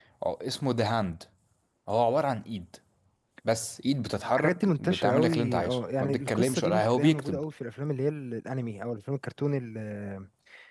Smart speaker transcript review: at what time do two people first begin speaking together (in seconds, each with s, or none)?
4.4 s